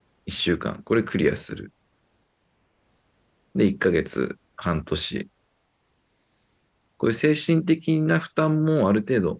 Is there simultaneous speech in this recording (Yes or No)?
No